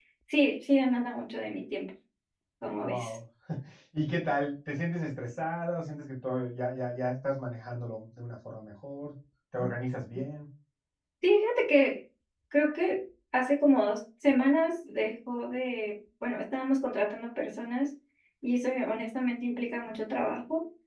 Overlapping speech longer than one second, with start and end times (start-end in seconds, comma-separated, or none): none